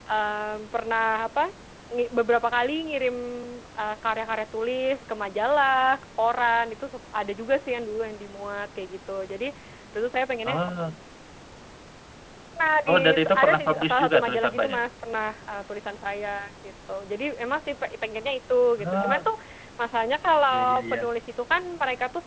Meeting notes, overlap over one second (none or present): present